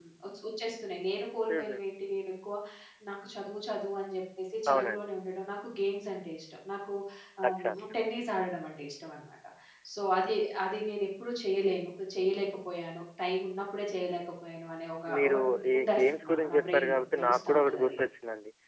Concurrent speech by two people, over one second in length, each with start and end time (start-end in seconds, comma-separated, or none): 15.2-17.9